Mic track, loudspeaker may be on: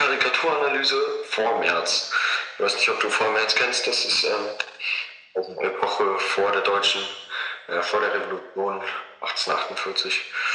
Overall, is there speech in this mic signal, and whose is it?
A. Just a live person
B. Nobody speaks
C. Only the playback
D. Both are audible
C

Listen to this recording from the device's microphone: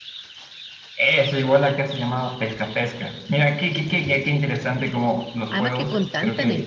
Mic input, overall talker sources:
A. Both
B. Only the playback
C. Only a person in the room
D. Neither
A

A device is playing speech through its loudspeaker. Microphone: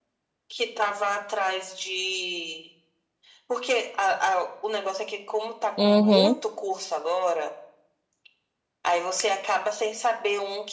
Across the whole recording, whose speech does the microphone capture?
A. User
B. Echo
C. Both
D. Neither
C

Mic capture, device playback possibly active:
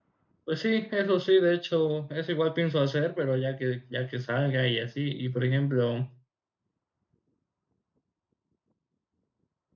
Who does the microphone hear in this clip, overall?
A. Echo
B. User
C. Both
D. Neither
B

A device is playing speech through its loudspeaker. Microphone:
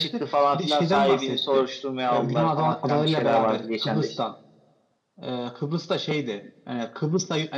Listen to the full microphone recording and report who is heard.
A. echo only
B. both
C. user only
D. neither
A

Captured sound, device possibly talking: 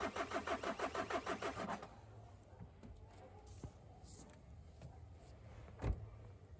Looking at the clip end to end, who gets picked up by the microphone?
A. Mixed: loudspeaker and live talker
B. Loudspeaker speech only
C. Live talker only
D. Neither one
D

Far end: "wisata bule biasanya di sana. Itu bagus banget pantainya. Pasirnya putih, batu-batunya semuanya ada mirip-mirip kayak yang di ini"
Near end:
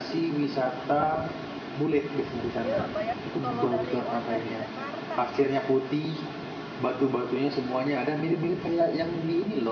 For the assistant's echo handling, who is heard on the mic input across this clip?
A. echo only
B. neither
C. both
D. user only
C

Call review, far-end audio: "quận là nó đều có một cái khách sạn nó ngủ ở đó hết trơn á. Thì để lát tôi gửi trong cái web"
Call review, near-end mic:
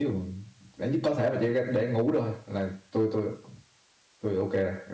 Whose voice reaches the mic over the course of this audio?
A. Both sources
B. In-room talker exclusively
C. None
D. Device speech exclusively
B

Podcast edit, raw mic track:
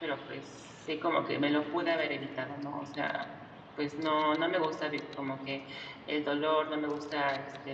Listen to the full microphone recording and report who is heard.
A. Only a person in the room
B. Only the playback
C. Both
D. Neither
A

